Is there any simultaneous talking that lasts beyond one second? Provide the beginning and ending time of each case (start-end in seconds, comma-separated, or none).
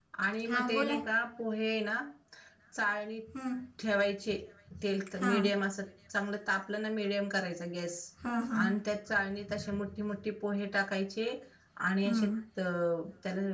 none